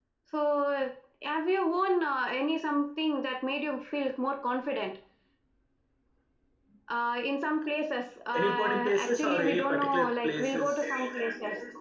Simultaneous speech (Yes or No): Yes